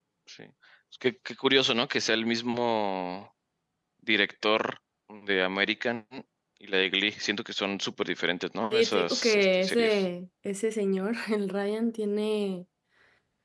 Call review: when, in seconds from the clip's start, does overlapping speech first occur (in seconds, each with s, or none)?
8.7 s